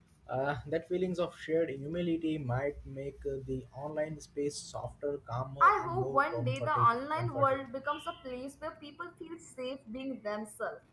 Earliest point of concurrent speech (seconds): 6 s

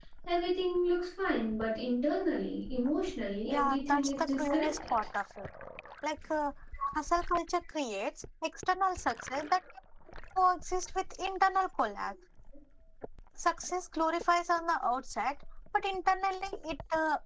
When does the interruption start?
3 s

